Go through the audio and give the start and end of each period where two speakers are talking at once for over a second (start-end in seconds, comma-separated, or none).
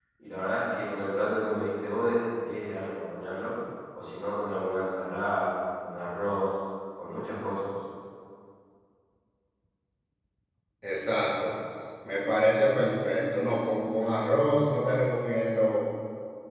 none